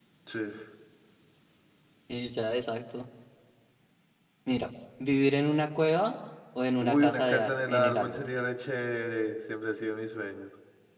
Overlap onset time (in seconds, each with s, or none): 6.8 s